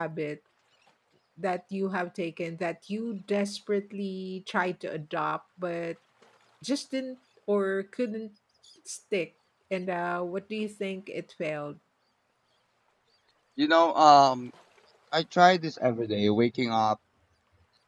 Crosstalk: none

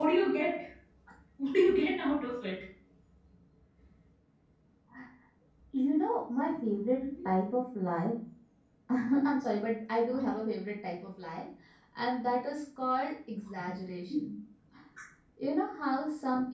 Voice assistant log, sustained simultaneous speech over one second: none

